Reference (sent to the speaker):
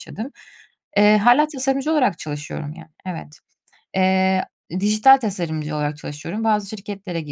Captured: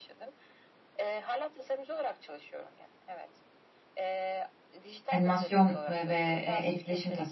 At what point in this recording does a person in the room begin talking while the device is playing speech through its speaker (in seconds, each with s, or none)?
5.1 s